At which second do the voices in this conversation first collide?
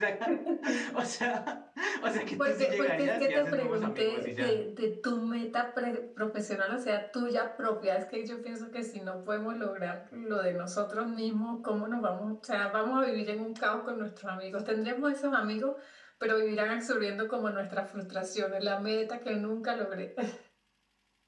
2 s

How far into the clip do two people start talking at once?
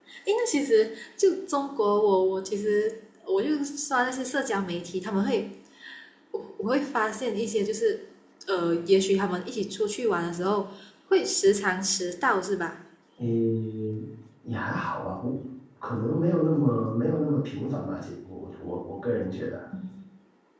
none

